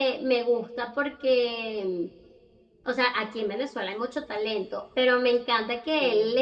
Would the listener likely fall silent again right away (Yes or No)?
Yes